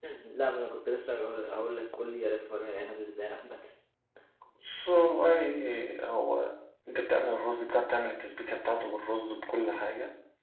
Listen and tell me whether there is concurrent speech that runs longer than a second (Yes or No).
No